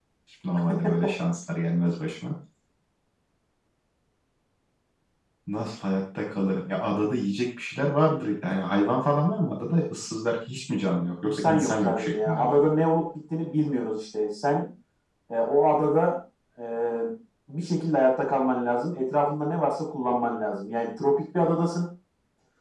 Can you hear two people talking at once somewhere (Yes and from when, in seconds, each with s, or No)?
Yes, from 11.2 s